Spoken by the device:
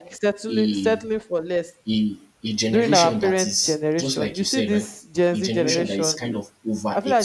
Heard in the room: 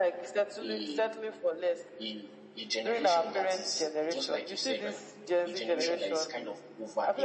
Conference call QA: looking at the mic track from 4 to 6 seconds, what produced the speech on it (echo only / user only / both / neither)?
echo only